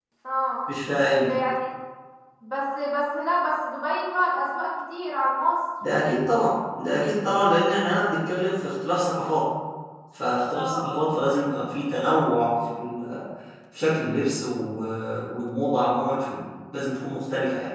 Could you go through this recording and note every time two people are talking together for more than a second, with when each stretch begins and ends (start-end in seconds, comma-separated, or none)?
none